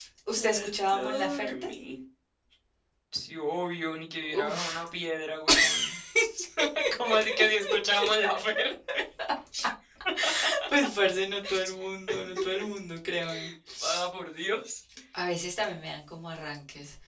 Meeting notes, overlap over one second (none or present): present